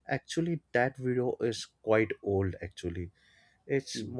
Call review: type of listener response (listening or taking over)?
listening